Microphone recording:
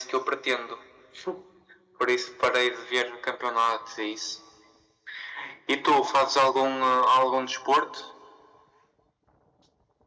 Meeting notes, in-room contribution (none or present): none